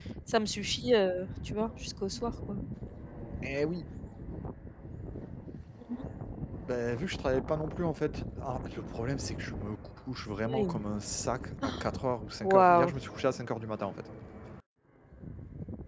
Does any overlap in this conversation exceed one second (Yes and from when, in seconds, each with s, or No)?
No